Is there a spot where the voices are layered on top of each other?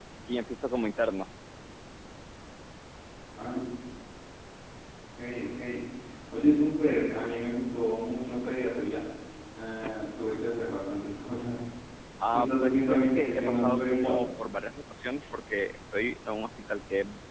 Yes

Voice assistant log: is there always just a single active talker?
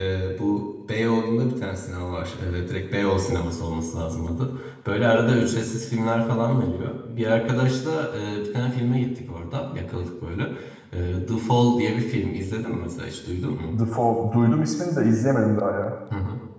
Yes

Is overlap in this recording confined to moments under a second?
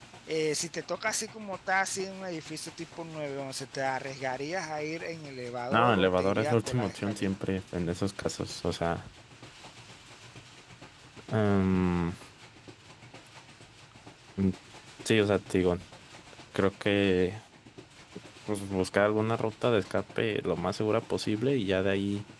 No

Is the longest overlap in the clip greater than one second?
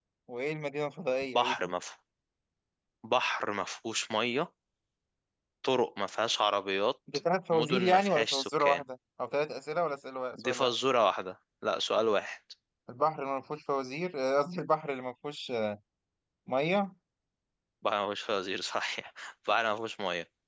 Yes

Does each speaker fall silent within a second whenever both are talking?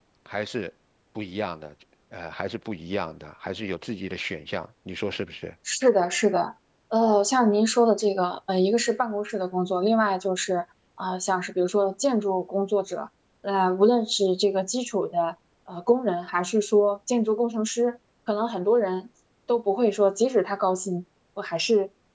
Yes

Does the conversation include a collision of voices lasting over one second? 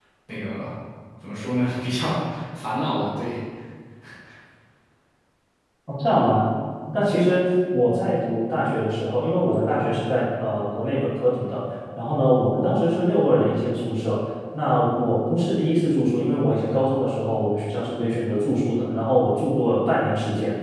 No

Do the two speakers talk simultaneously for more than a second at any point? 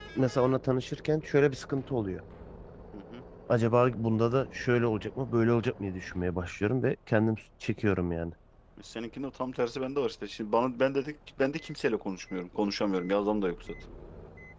No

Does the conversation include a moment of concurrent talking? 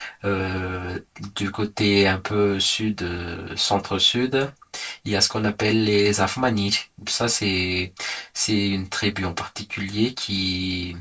No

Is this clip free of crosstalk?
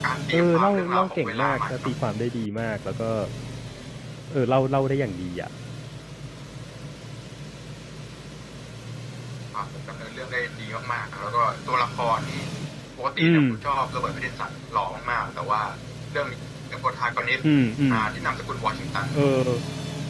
No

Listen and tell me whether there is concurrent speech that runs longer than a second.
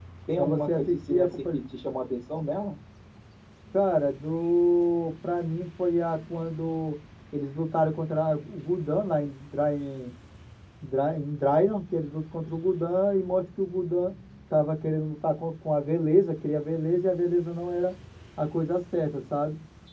Yes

